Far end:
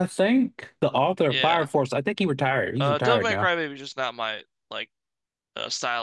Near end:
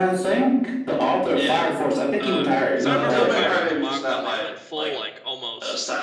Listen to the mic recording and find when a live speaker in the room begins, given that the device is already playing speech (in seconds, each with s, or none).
2.2 s